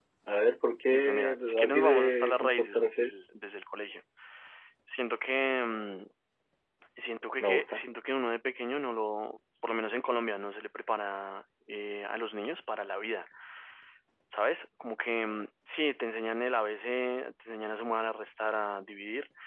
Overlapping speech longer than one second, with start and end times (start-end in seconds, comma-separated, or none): 0.9-3.1